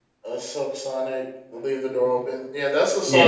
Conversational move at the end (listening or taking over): listening